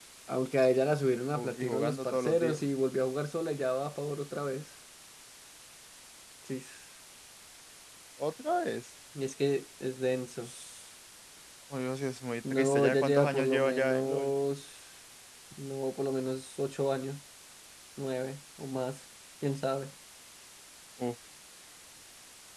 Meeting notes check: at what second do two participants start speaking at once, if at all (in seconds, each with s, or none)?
1.3 s